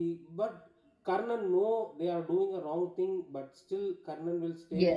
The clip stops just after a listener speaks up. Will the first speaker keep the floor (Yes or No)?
Yes